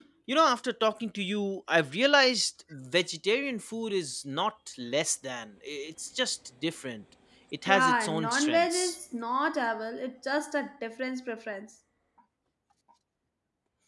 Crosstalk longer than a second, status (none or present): present